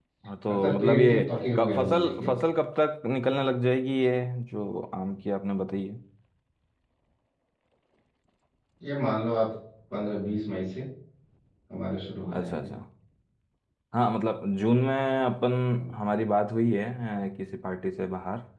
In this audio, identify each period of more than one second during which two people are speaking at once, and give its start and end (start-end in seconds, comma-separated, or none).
0.5-2.3